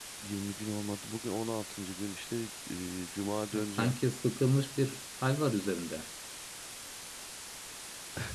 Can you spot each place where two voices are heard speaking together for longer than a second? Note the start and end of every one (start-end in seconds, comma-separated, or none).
none